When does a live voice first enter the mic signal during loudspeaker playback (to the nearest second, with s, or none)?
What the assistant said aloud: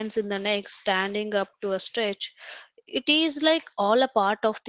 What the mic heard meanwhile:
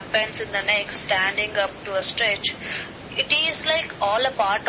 none